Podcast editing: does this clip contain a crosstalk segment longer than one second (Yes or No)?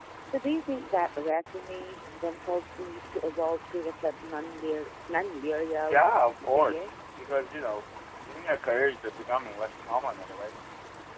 No